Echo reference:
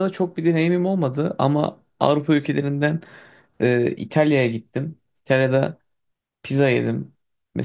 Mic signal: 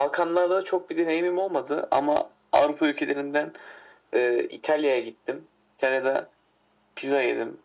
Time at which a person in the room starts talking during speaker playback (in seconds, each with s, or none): none